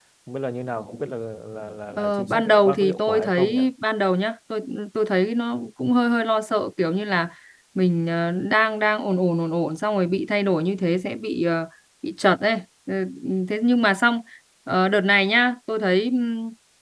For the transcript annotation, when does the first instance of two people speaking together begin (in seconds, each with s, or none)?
1.9 s